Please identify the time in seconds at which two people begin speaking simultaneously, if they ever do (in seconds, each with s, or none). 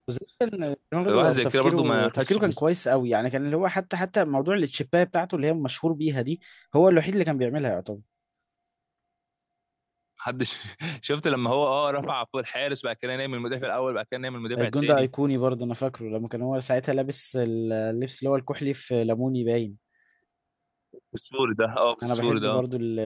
1.1 s